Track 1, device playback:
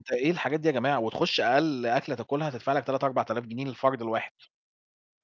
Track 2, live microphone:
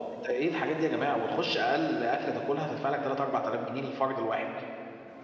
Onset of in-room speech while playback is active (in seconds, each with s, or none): none